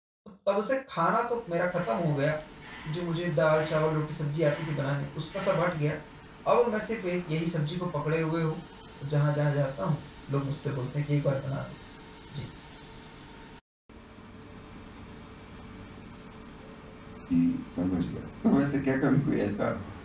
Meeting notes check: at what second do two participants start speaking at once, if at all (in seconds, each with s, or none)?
none